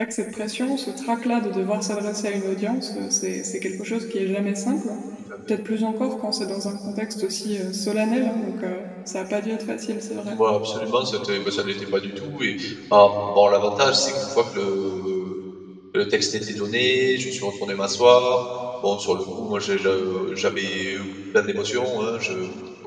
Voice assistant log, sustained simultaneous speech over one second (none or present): none